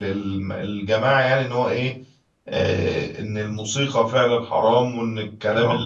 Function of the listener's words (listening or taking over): listening